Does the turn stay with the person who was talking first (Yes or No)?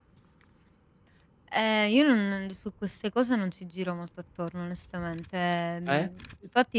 Yes